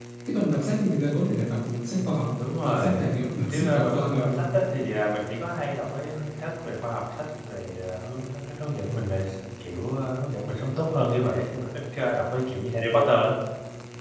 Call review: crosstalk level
present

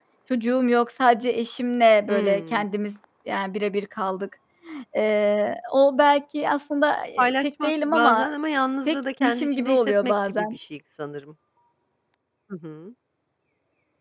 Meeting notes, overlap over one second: present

